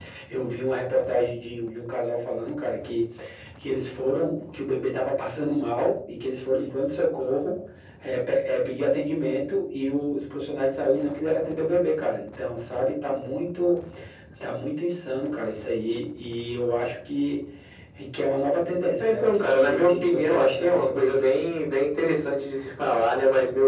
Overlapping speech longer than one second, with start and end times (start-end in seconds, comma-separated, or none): 19.0-21.3